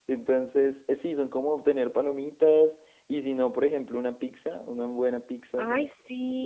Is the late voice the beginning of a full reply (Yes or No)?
Yes